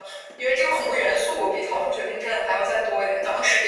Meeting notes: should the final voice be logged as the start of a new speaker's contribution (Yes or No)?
No